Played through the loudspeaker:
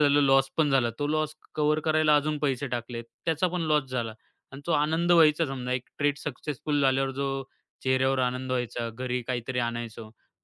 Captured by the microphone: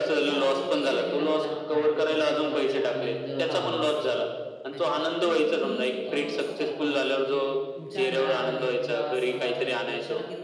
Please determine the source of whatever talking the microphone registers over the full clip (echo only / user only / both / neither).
both